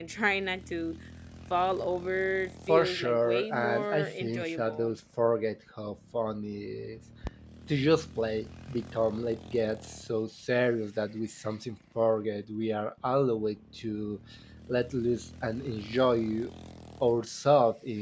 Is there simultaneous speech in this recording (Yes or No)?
Yes